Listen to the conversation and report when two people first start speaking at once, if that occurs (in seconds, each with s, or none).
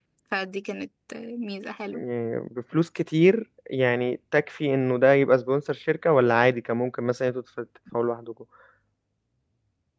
none